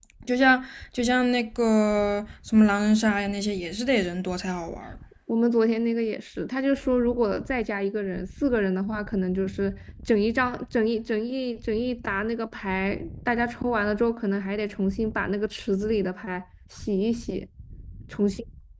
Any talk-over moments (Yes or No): No